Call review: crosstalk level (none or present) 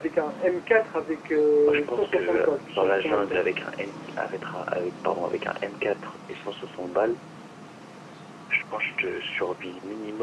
present